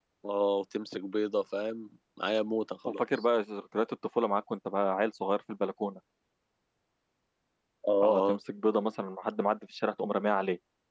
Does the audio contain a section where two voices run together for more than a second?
No

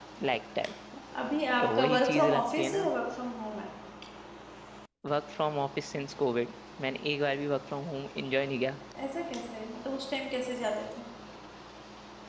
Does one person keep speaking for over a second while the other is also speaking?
Yes, from 1.6 s

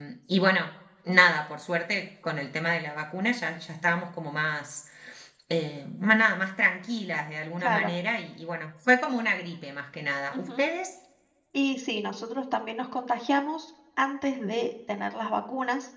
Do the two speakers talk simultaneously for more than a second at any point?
No

